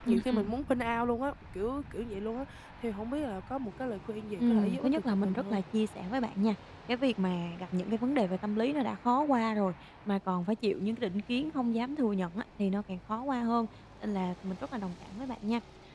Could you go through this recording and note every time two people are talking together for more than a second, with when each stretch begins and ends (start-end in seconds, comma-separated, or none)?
4.4-5.6